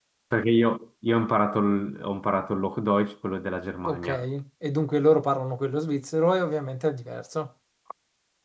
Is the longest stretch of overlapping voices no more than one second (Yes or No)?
Yes